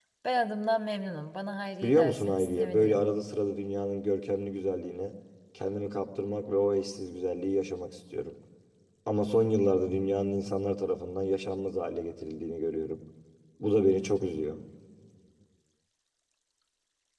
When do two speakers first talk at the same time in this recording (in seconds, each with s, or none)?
1.8 s